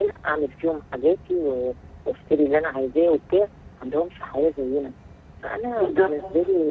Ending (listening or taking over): listening